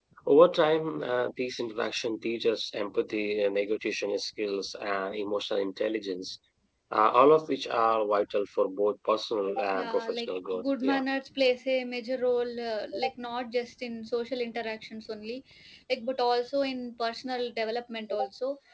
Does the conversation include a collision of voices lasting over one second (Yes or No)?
Yes